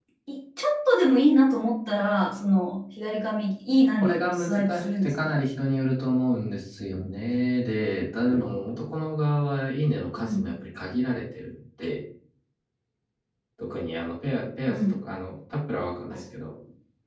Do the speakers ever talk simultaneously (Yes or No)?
Yes